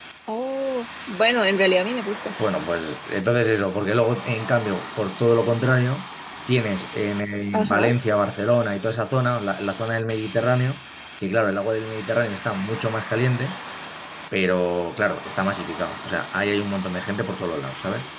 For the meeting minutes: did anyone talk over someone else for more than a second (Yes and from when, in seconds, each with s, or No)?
No